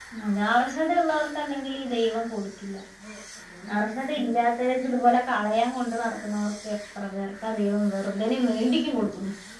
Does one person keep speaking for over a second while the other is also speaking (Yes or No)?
No